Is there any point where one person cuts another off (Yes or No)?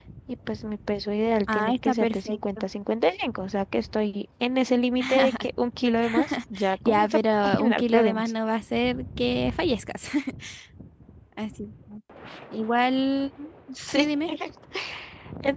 Yes